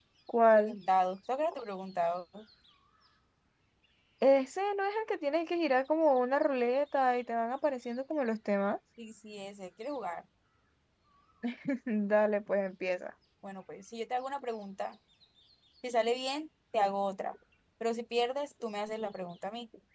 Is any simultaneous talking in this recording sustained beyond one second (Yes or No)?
No